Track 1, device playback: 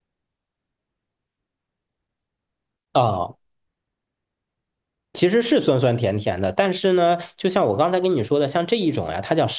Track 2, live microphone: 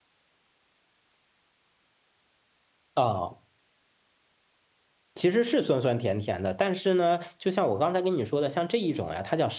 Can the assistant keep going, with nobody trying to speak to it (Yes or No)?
Yes